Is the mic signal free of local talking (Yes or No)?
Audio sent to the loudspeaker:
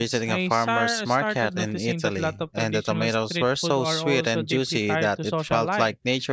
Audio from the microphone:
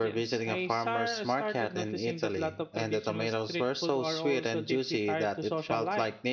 Yes